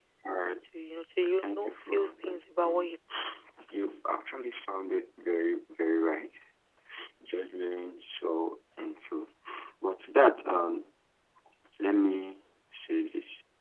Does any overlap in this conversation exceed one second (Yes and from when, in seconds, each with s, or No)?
Yes, from 1.5 s